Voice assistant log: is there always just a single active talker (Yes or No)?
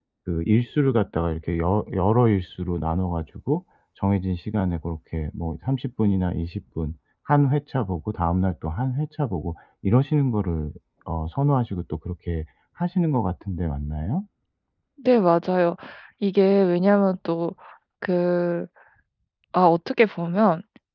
Yes